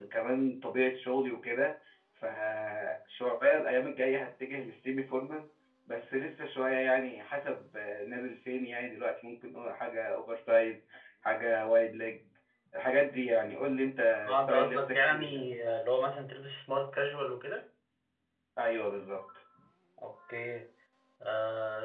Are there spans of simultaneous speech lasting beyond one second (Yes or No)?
Yes